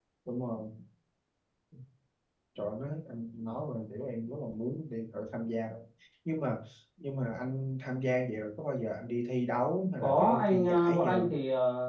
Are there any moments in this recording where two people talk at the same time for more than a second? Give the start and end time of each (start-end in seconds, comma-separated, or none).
10.0-11.3